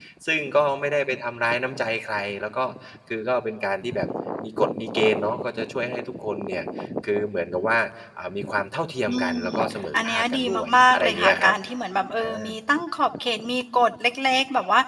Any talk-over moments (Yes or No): Yes